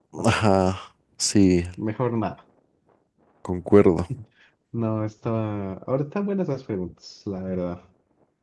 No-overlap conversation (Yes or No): Yes